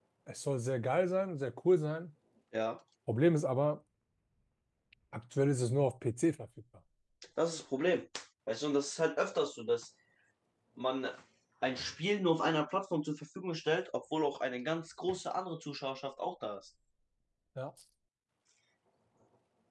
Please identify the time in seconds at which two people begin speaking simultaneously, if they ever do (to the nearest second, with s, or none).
none